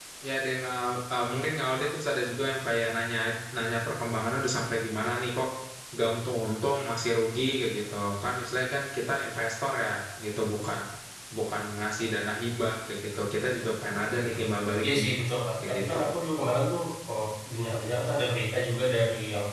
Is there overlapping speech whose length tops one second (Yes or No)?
No